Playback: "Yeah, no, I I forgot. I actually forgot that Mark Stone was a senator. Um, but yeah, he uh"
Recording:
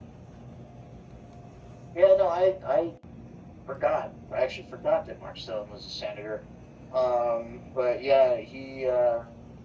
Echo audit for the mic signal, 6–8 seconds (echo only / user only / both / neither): echo only